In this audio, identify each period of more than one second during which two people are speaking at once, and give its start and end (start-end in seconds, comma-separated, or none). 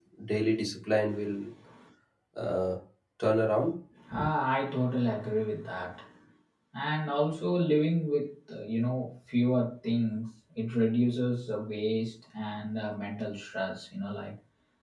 none